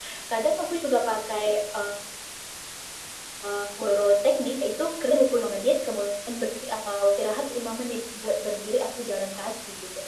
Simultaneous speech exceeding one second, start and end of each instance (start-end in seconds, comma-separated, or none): none